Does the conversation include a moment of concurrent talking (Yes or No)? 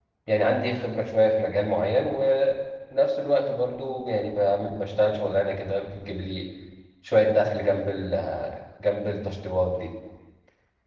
No